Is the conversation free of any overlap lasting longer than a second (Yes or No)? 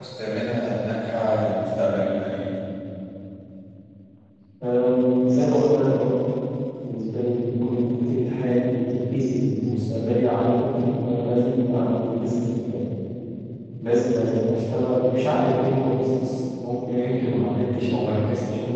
Yes